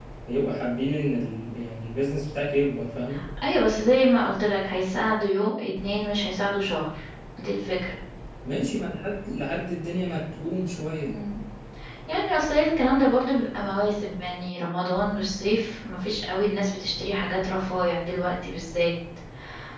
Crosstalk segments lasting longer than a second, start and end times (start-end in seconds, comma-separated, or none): none